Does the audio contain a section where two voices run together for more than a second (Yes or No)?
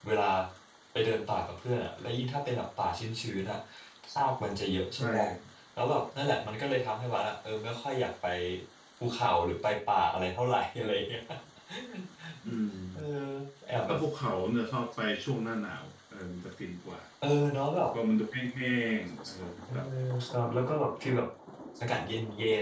No